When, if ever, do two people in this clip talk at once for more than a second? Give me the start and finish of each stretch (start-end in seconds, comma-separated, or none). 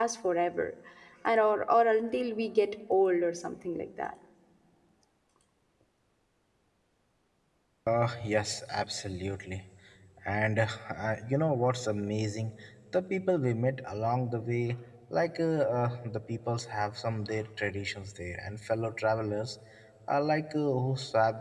none